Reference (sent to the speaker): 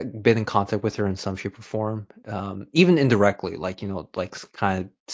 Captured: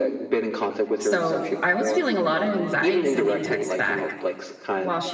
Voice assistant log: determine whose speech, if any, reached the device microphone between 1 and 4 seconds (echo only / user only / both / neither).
both